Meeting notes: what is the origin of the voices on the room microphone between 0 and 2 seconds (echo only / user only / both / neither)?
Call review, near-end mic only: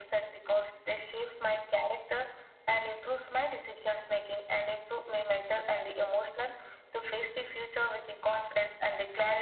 echo only